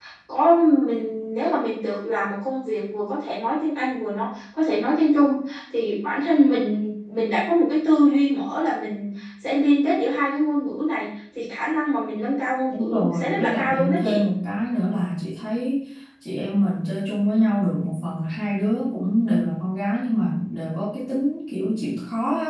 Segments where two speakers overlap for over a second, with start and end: 12.7-14.2

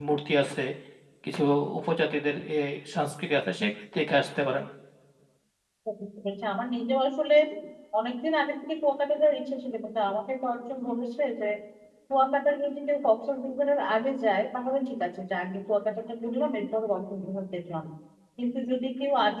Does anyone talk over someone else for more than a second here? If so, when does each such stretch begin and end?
none

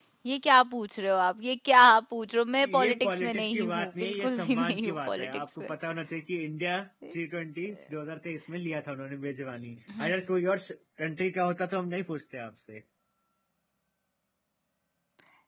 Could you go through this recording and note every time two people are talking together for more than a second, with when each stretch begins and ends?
2.6-5.7

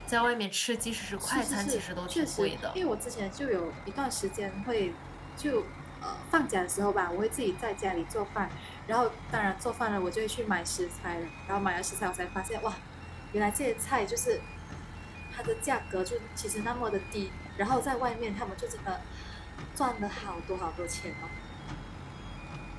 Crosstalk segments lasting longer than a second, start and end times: 1.2-2.8

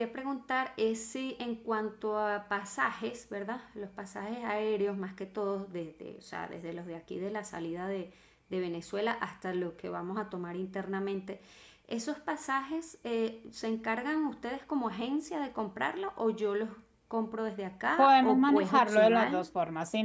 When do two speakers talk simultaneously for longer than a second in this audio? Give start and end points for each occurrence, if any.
18.0-19.4

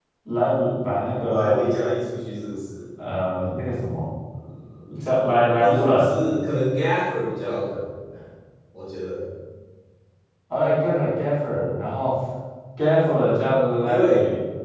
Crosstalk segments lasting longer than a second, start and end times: none

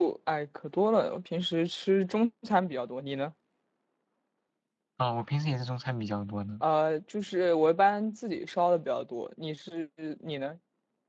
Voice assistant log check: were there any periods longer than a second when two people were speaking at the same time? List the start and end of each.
none

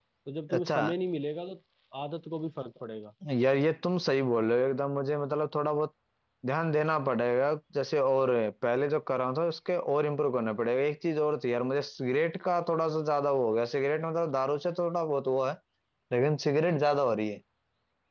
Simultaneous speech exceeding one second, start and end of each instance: none

